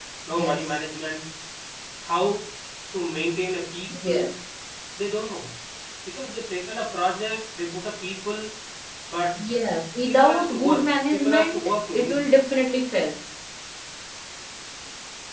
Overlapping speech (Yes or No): Yes